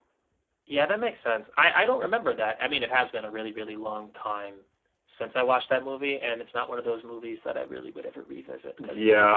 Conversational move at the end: taking over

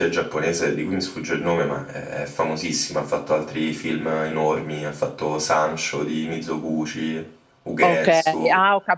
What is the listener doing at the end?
taking over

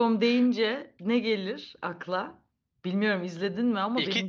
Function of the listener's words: taking over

